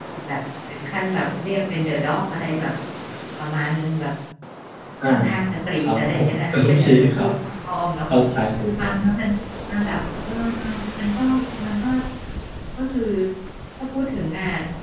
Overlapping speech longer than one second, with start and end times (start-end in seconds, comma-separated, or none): 5.8-7.3